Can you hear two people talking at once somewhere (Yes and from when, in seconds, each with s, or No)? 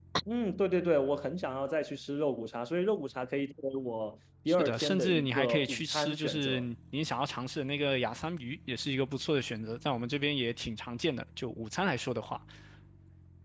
Yes, from 4.5 s